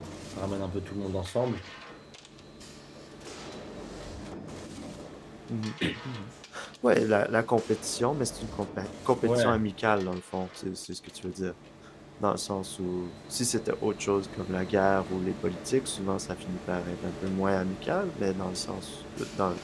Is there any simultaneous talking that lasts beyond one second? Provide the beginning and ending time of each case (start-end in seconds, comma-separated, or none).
none